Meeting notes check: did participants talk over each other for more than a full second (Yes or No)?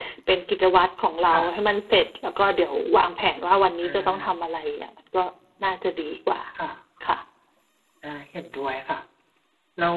No